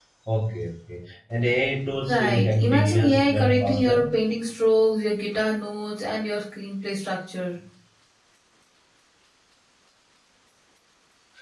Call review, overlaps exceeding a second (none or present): present